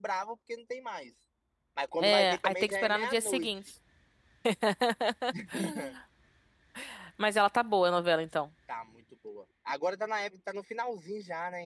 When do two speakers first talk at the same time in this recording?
2.0 s

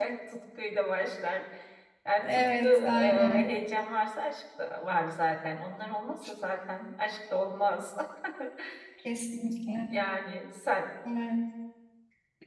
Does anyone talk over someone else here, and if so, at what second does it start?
2.2 s

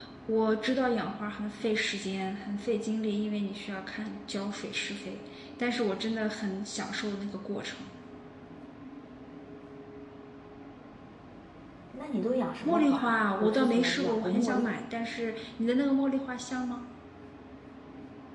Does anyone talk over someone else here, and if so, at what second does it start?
12.7 s

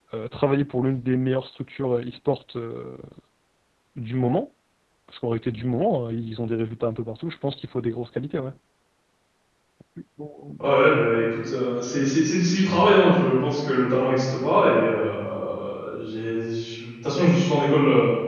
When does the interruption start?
none

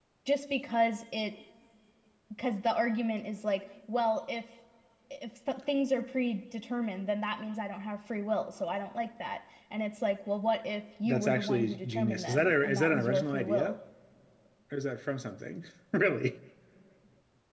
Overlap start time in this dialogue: 11.0 s

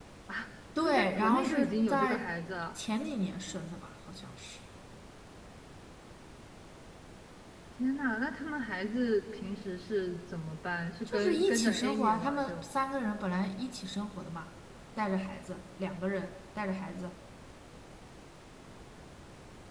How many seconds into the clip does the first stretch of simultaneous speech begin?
0.8 s

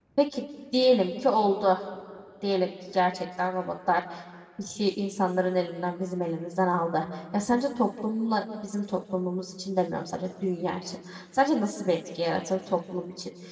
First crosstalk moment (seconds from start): none

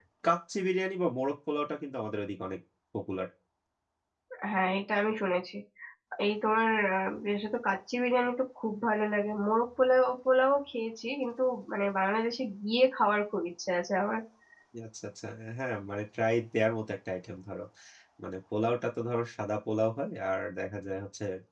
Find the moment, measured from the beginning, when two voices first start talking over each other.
none

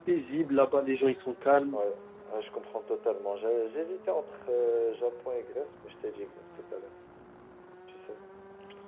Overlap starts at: none

